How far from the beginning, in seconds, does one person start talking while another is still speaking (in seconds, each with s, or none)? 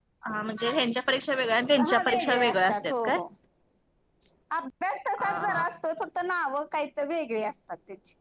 1.8 s